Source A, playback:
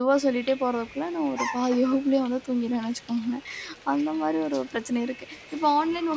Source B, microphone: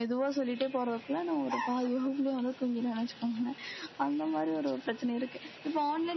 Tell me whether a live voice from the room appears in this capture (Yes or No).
No